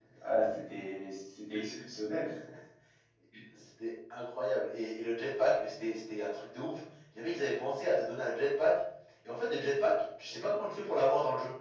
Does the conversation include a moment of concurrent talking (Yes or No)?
No